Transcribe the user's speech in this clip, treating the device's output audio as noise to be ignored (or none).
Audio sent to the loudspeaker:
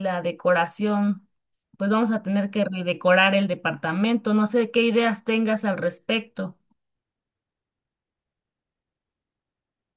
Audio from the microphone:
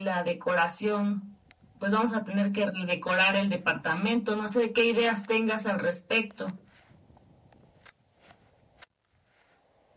none